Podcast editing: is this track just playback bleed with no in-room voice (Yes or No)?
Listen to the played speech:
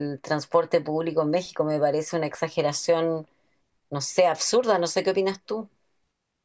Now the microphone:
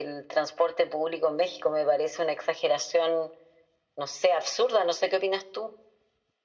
Yes